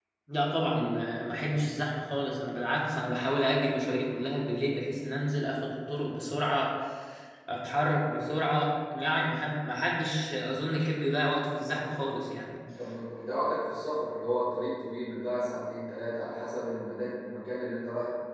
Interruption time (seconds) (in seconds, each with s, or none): none